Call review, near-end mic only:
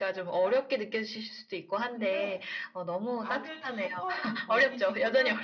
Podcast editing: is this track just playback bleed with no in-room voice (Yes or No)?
No